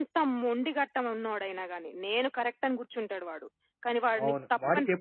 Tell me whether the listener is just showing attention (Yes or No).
No